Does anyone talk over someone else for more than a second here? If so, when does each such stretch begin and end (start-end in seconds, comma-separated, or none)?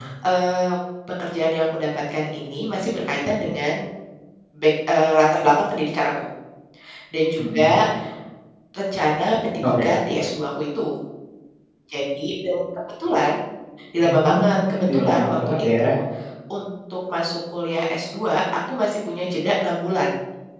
14.0-15.9